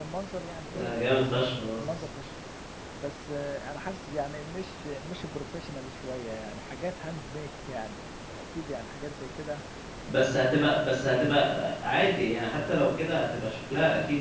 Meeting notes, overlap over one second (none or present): none